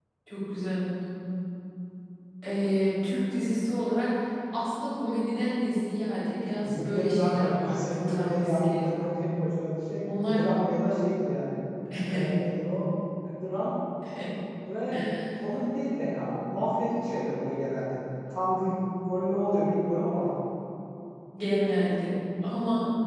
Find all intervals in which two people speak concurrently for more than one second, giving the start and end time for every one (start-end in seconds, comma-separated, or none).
6.6-8.8